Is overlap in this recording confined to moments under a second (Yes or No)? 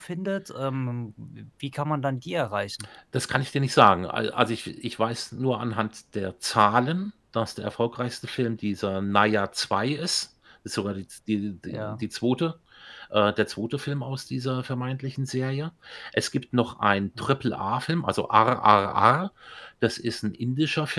Yes